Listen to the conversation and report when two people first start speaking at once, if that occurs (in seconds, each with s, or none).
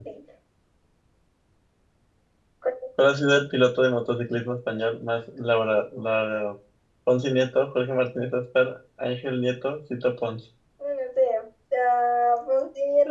none